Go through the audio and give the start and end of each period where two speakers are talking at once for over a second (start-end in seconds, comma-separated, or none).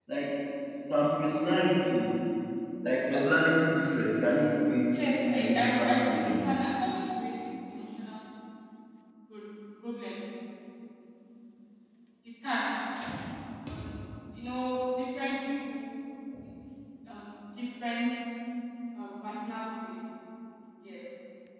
5.3-6.6